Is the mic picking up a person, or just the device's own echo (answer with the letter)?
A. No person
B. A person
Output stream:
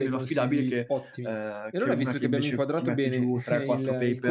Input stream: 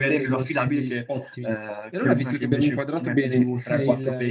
A